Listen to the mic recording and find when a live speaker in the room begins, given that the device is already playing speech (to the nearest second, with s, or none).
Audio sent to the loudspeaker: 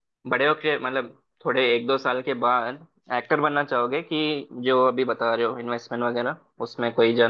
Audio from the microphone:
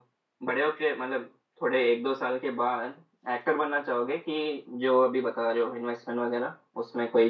none